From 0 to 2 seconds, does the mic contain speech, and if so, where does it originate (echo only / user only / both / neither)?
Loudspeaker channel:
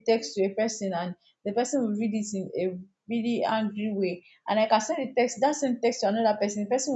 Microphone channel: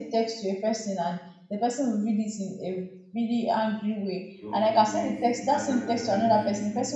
echo only